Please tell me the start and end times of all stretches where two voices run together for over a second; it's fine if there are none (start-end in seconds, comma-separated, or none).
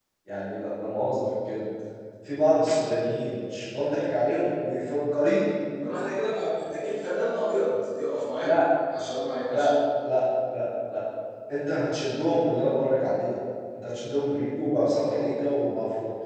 none